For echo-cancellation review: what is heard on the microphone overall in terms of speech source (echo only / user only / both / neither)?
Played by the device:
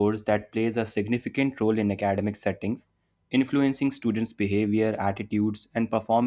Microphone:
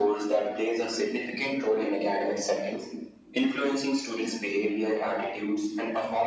echo only